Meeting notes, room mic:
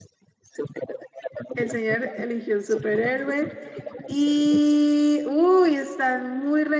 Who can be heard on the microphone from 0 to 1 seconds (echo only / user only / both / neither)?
echo only